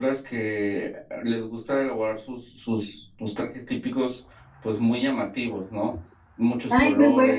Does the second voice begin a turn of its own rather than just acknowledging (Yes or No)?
Yes